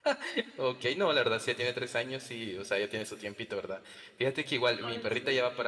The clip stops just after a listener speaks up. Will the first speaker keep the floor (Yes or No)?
Yes